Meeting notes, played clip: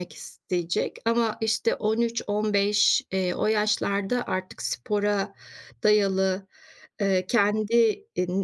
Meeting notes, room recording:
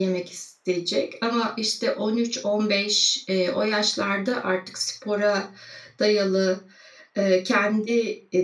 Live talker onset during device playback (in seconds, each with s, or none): none